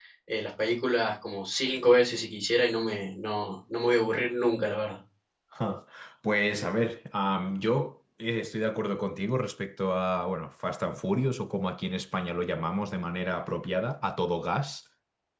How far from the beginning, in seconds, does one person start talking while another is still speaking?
none

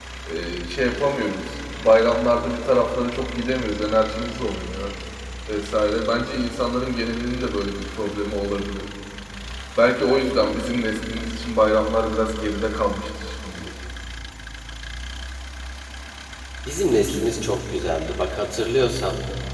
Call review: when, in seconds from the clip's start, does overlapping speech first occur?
none

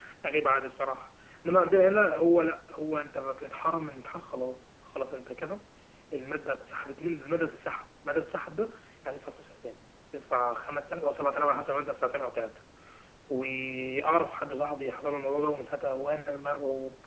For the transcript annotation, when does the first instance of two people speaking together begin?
none

